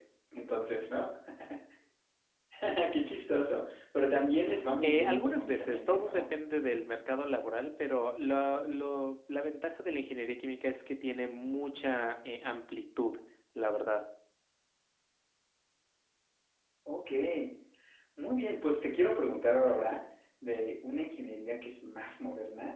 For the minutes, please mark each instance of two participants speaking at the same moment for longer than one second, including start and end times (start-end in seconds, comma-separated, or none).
4.8-6.3